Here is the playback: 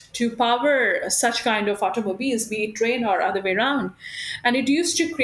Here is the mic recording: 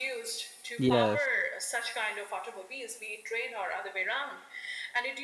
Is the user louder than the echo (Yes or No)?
Yes